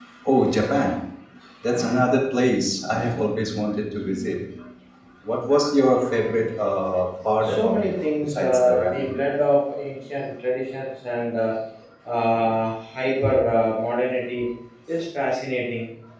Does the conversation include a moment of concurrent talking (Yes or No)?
Yes